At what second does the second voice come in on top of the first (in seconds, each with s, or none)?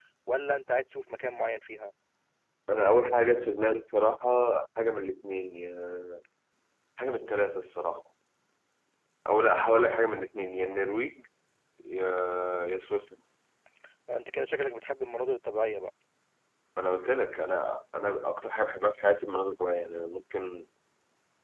none